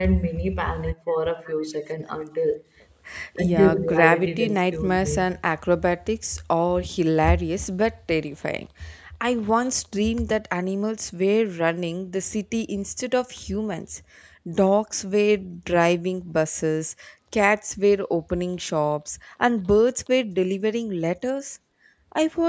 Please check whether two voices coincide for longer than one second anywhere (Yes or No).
Yes